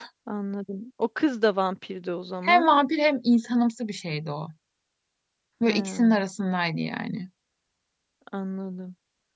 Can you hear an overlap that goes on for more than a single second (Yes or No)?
No